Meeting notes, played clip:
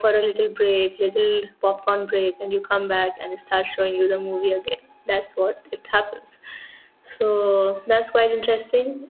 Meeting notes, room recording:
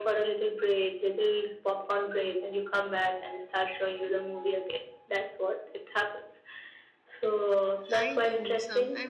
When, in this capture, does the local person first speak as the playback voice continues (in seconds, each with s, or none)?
7.9 s